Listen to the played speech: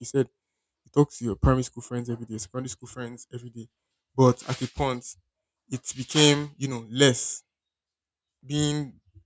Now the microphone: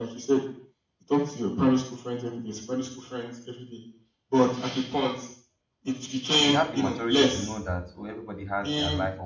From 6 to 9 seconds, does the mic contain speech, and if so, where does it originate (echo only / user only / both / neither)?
both